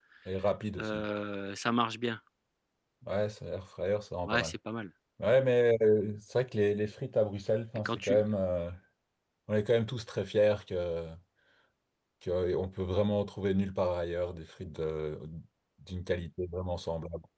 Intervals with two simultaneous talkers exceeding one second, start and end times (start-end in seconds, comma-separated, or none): none